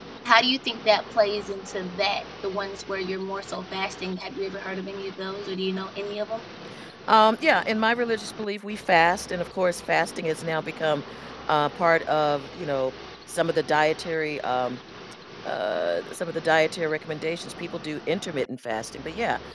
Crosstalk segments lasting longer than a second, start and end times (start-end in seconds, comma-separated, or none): none